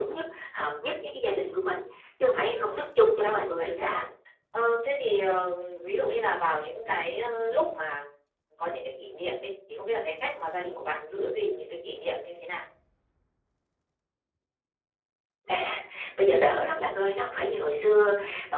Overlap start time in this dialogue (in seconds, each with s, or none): 2.5 s